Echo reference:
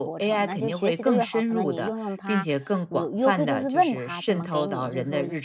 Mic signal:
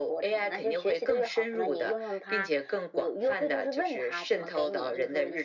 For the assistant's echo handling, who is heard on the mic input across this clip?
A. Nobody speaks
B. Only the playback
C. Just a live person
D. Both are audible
B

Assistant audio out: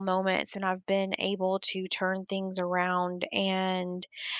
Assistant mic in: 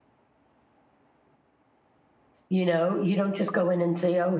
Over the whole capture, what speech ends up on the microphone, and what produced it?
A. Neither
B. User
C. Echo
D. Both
B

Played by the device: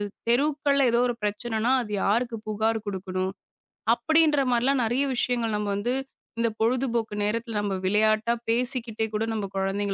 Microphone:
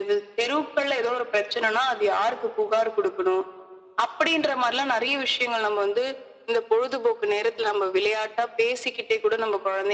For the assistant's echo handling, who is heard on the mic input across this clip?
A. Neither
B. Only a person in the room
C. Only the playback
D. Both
C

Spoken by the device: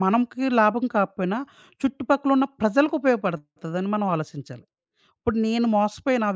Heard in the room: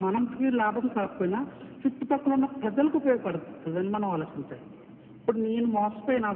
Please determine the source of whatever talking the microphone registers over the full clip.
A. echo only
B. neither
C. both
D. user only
A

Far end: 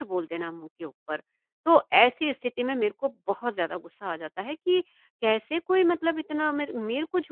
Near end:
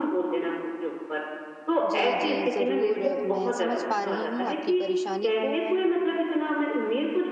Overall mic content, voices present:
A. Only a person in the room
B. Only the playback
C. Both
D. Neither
C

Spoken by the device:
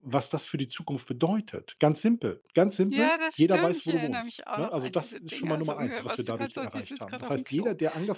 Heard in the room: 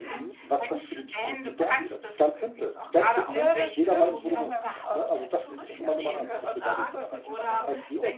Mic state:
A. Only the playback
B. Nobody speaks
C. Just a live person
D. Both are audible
D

